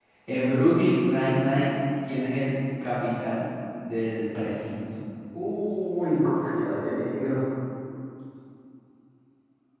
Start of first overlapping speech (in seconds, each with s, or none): none